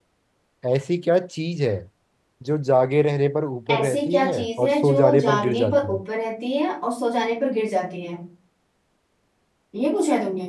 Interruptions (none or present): present